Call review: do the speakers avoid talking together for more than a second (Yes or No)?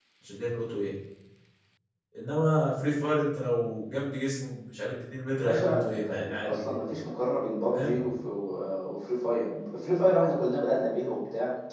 No